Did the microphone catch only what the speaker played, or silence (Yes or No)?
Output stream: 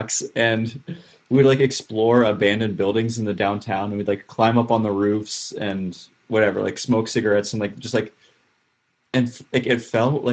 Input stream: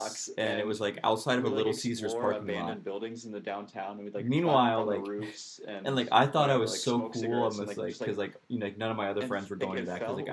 No